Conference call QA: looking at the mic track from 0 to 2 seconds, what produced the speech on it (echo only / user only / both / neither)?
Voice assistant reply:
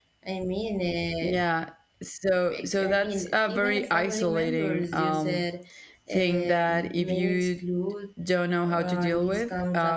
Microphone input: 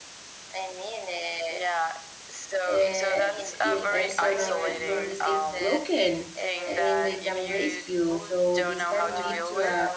echo only